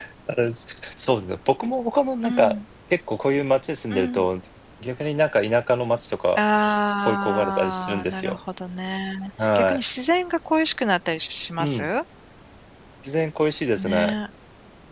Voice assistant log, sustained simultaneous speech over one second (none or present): present